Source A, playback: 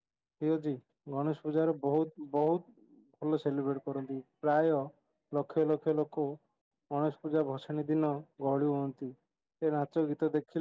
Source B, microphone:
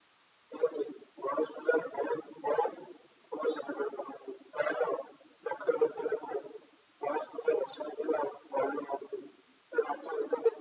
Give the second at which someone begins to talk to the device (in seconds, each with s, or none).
none